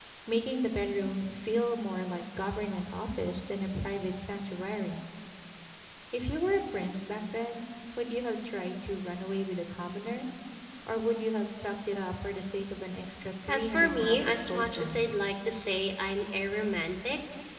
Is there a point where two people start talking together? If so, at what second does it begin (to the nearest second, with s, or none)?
13 s